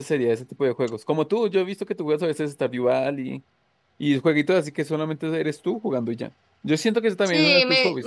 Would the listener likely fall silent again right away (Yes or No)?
No